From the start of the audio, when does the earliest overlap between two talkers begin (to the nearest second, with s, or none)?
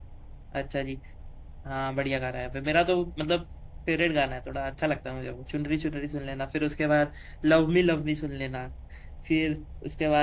none